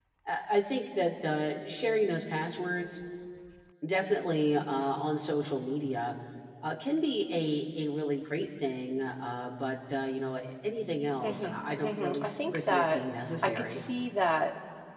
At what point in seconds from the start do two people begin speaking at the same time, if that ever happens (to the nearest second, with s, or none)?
11 s